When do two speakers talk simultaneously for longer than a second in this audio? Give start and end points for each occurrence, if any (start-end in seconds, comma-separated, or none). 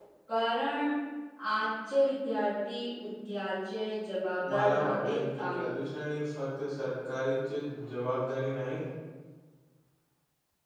4.5-5.7